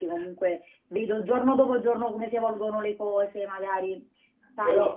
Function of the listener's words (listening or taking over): listening